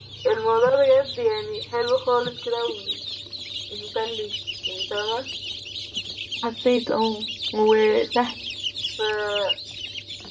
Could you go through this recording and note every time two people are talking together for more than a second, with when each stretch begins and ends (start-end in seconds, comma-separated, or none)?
none